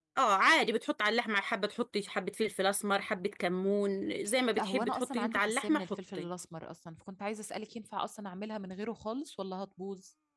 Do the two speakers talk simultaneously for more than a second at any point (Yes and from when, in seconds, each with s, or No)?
Yes, from 4.6 s